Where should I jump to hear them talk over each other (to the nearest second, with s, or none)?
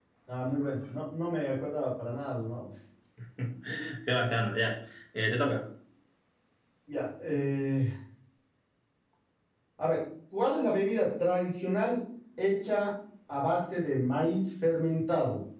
none